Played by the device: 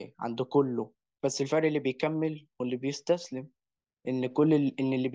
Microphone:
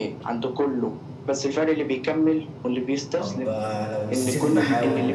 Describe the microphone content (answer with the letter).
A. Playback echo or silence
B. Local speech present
B